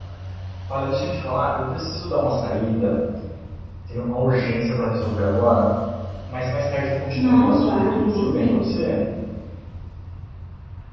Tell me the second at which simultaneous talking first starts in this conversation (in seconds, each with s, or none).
7.2 s